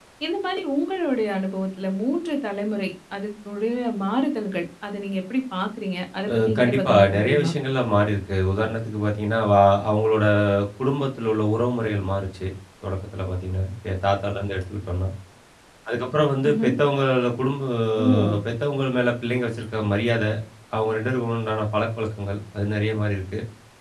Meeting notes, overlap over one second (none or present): present